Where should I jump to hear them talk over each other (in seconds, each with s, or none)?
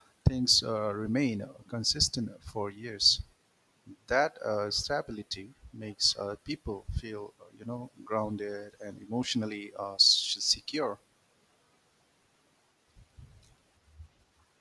none